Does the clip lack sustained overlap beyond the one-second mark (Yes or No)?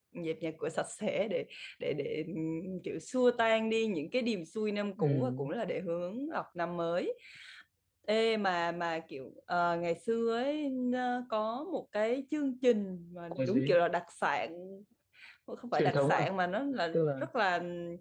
Yes